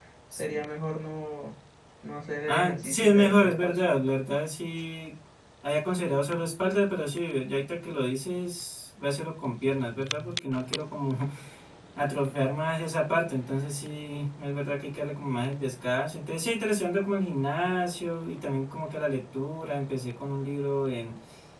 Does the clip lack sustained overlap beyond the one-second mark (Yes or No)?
No